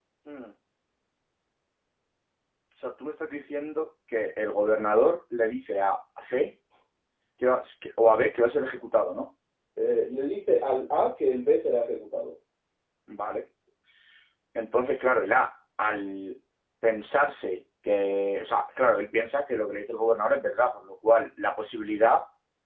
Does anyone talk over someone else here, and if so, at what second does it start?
none

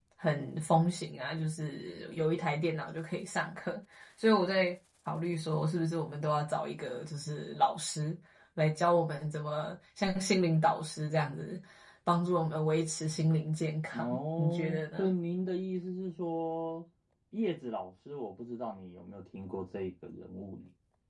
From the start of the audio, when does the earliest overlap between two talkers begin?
14 s

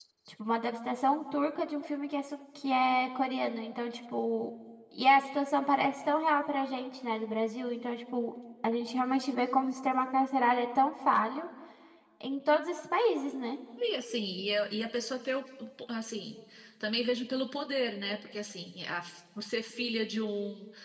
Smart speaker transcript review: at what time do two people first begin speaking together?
none

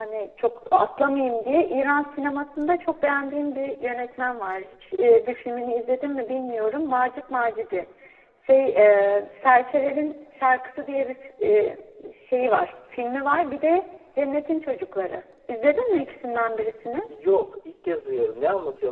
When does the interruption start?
none

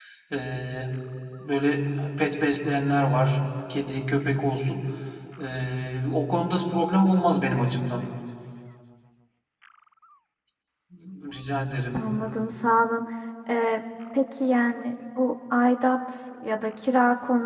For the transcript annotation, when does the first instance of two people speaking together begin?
none

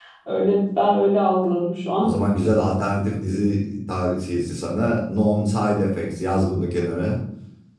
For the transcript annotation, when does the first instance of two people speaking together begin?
none

